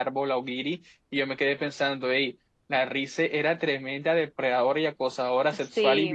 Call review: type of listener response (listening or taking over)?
listening